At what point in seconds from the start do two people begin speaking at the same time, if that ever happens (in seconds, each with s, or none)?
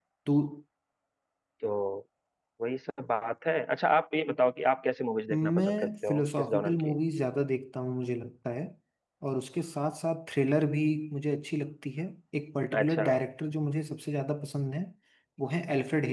5.3 s